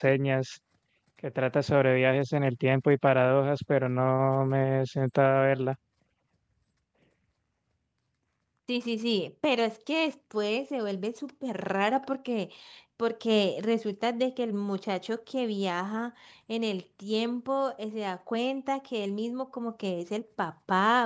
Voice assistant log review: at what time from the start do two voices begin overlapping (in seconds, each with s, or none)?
none